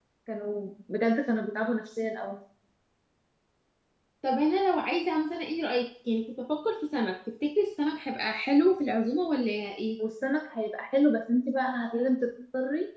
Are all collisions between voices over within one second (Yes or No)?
Yes